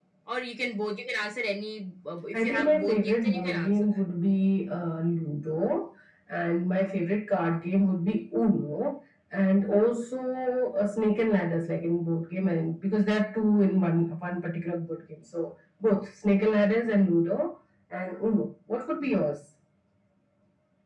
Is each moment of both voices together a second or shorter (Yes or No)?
No